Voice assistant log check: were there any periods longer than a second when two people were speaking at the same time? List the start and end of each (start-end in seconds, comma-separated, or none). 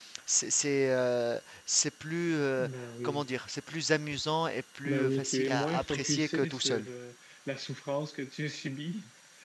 4.8-6.9